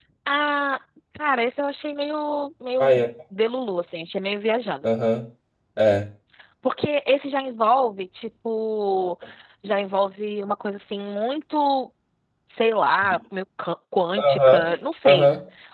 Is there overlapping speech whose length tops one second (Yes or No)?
No